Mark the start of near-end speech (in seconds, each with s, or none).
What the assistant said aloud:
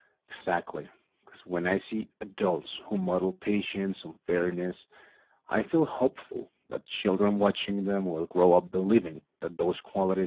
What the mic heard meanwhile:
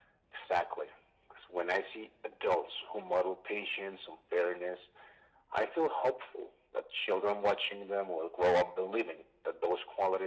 none